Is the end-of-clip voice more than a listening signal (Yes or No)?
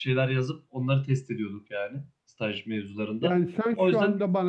Yes